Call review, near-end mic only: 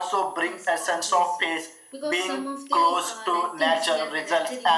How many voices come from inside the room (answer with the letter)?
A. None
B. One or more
B